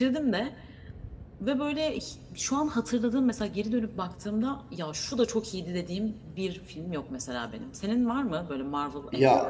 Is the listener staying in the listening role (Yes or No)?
No